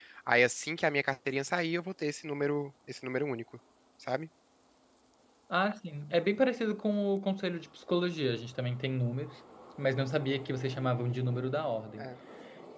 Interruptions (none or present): none